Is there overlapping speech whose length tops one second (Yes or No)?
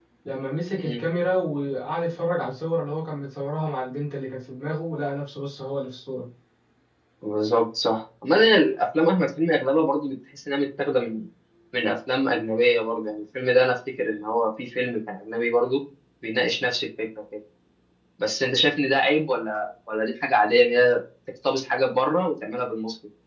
No